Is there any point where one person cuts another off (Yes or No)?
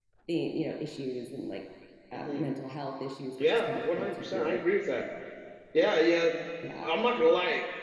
Yes